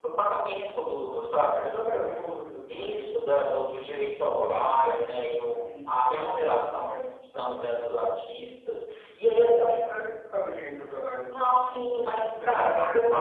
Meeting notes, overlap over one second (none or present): present